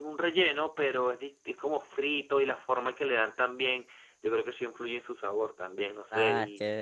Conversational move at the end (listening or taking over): taking over